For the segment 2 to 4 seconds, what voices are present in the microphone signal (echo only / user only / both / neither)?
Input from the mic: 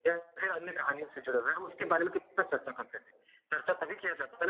echo only